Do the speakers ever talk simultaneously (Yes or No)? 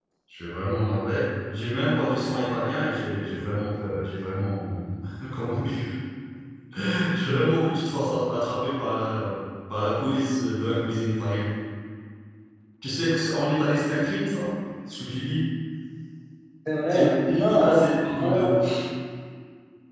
Yes